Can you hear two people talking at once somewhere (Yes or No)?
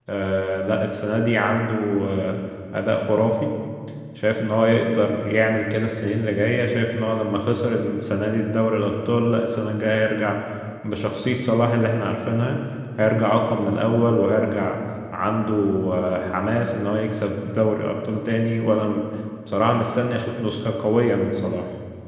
No